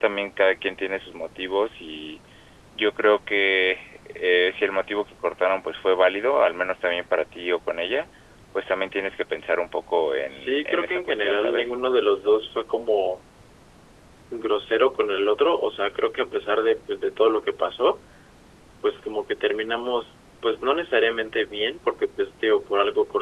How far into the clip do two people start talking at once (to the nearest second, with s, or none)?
10 s